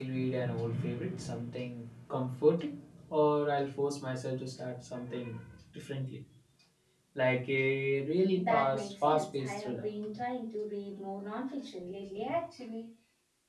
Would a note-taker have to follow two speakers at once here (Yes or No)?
Yes